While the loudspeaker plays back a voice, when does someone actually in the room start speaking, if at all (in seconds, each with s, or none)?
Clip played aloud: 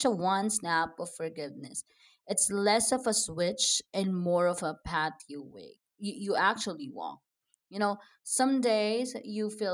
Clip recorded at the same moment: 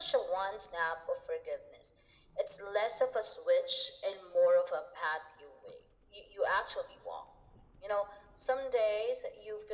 none